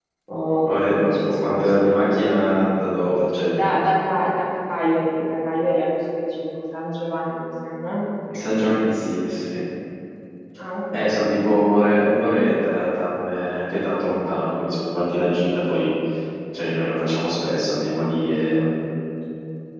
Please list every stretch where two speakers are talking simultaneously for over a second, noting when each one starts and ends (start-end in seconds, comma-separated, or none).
0.6-1.9